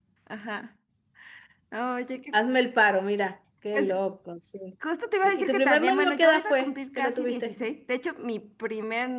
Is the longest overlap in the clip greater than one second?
Yes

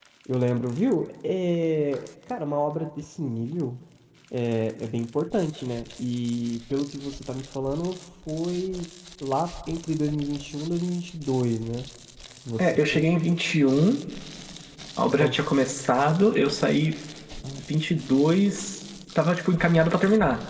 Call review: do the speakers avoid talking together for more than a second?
Yes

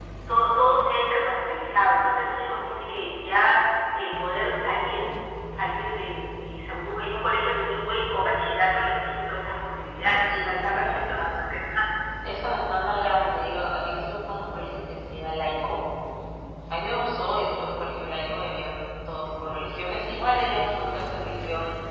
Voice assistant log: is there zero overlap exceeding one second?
No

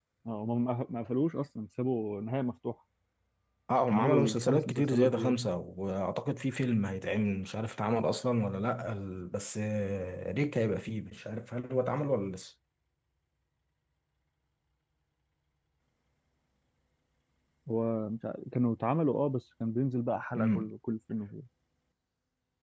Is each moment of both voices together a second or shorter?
No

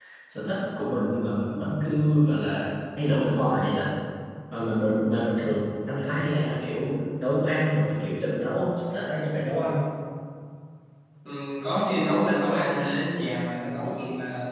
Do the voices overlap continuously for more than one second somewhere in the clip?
No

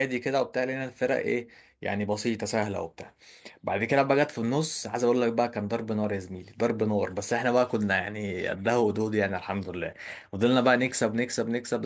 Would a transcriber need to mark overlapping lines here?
No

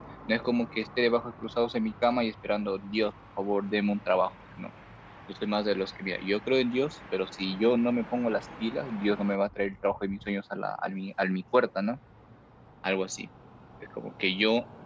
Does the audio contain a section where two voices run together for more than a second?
No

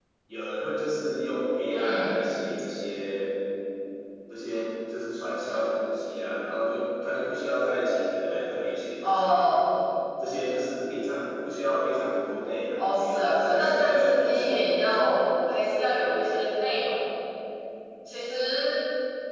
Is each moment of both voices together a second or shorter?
No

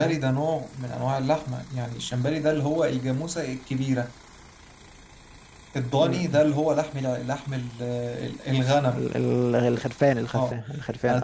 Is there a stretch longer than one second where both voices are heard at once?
No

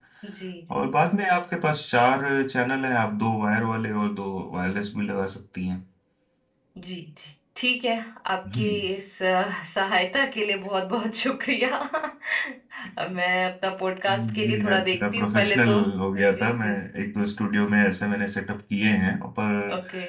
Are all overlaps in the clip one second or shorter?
No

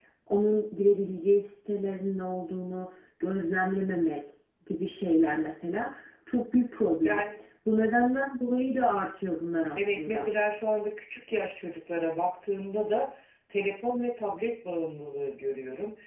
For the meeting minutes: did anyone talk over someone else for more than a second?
No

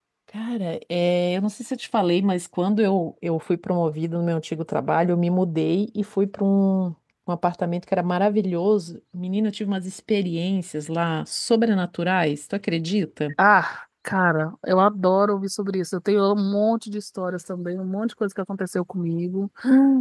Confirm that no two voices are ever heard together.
Yes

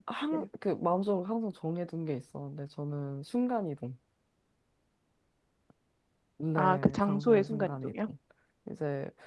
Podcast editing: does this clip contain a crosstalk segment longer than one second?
Yes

